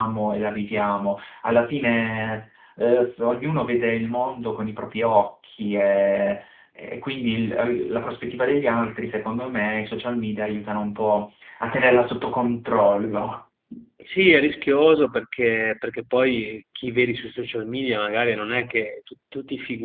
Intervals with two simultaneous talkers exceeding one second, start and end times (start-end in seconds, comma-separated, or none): none